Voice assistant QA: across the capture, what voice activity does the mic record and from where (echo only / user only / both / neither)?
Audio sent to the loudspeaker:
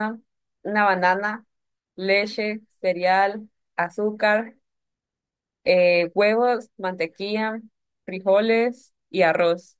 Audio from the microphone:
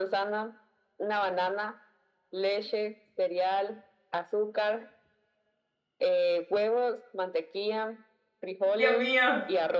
both